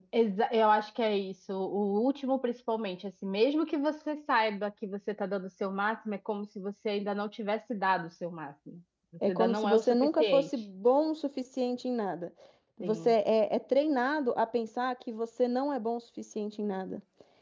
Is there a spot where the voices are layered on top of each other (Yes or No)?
Yes